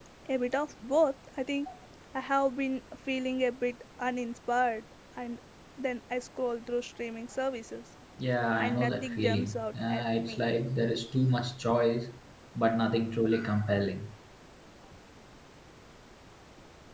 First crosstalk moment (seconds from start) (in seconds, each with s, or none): 8.6 s